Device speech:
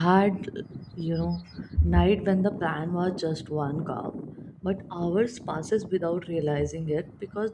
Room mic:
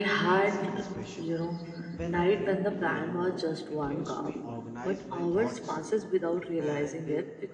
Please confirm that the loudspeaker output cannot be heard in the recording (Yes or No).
No